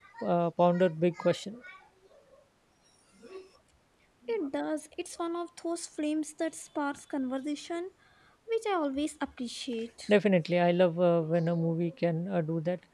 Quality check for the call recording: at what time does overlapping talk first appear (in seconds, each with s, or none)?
none